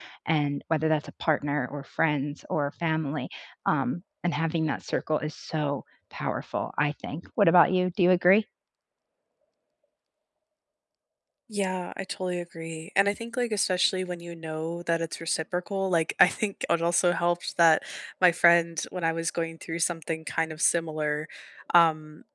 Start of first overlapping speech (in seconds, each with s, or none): none